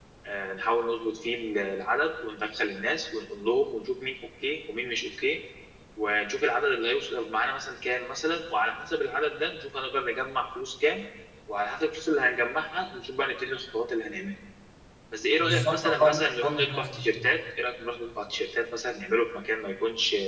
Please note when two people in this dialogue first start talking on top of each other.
15.4 s

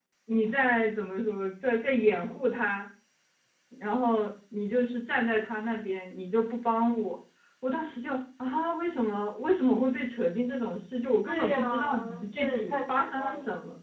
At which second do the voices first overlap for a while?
11.3 s

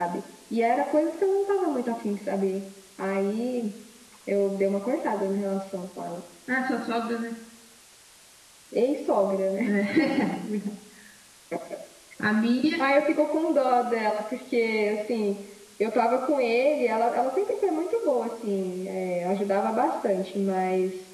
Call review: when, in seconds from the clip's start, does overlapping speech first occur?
none

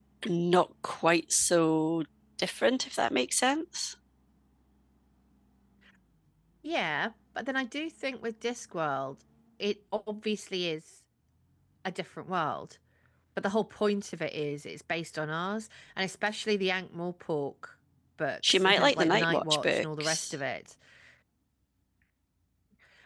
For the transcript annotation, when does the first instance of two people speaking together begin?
18.5 s

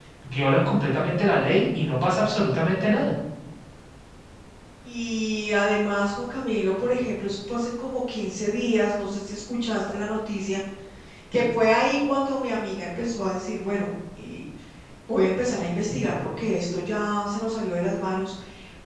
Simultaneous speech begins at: none

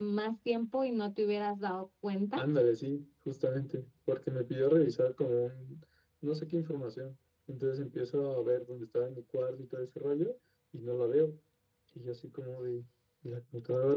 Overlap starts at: none

